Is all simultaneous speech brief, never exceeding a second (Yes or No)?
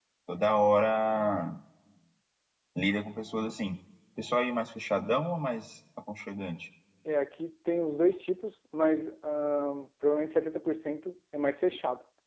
Yes